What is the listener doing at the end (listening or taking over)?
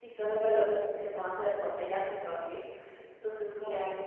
listening